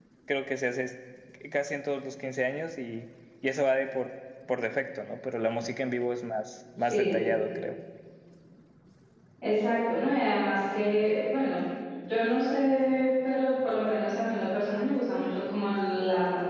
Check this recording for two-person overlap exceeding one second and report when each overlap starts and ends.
none

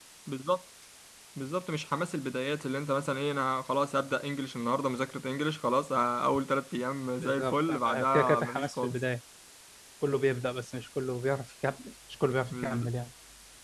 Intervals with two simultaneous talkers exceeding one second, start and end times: 7.2-9.0

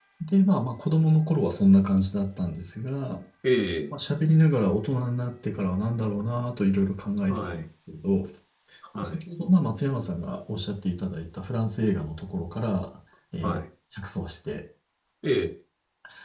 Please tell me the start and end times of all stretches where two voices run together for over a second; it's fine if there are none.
none

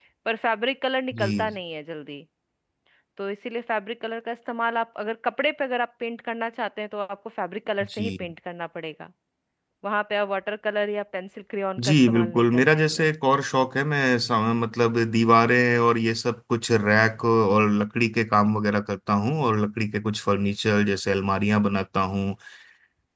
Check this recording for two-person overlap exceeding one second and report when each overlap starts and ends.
11.8-13.1

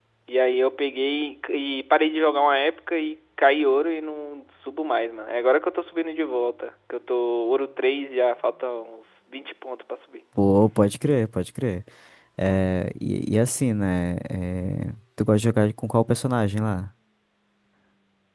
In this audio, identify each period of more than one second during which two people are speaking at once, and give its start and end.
none

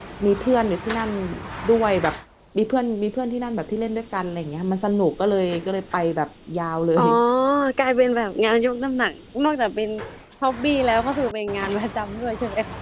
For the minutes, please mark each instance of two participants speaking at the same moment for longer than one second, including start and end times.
none

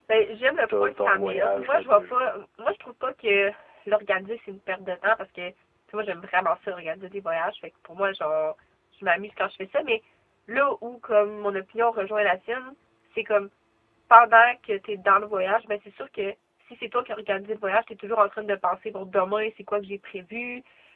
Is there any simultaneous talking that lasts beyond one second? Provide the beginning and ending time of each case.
0.8-2.2

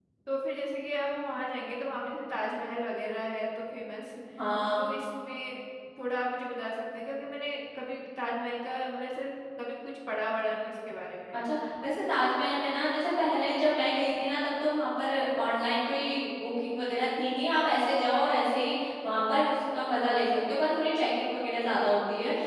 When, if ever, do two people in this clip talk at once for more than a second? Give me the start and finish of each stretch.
none

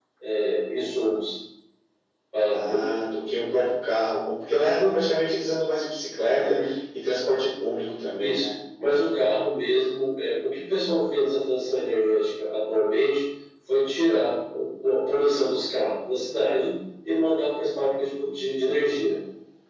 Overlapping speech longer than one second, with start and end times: none

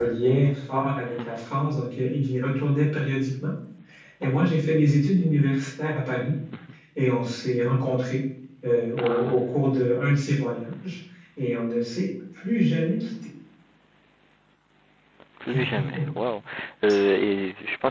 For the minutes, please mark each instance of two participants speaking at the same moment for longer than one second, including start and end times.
none

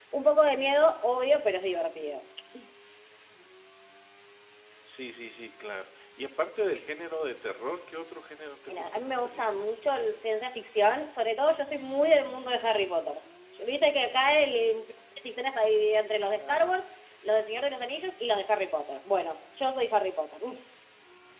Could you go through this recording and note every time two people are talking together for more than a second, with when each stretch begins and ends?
8.7-10.2

